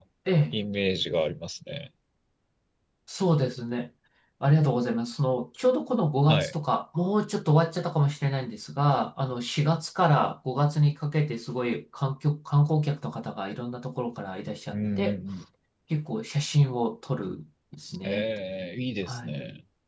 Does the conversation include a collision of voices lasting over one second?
No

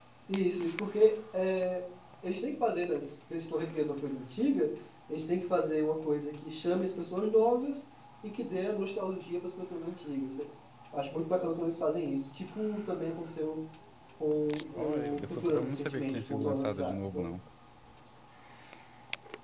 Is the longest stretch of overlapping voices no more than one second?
No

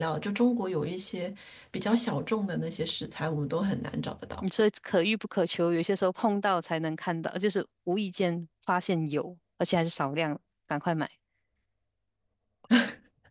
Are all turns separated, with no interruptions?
Yes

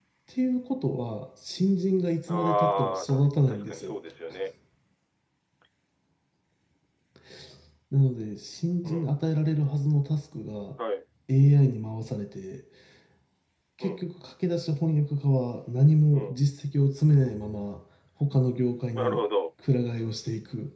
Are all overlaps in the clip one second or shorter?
No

